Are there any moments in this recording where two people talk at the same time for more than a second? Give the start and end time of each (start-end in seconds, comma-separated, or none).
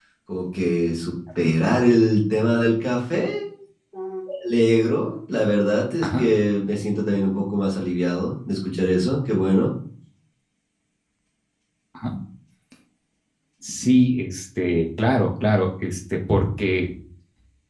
none